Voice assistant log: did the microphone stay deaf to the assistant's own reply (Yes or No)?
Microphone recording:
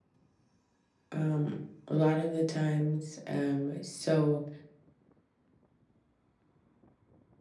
Yes